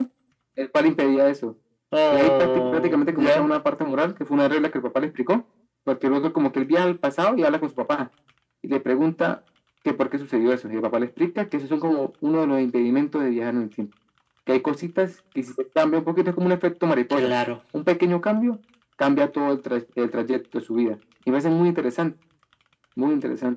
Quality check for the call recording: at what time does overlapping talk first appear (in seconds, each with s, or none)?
2.1 s